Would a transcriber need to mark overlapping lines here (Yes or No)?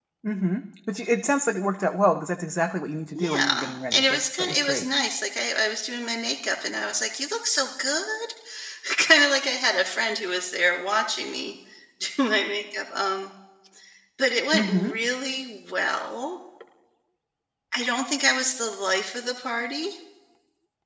Yes